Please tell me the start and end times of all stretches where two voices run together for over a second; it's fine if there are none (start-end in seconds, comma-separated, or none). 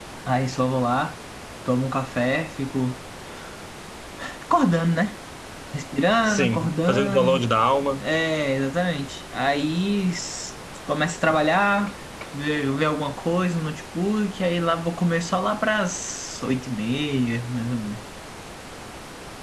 6.2-7.5